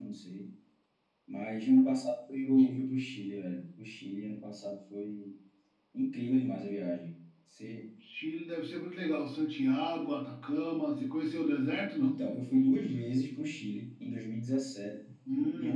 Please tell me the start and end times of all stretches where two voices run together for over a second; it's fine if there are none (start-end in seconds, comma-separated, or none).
none